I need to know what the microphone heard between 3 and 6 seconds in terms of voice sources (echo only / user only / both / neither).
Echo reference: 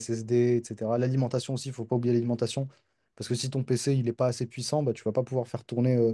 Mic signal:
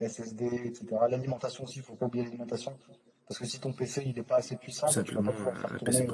both